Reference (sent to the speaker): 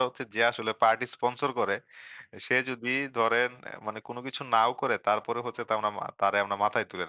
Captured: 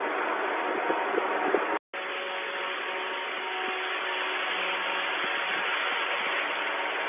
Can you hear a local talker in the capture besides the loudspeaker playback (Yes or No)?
No